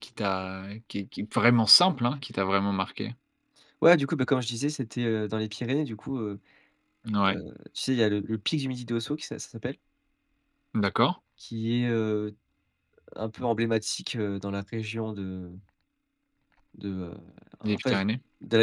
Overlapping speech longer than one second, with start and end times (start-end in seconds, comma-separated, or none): none